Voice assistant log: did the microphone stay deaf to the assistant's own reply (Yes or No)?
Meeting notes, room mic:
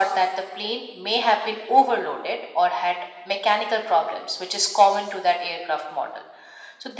No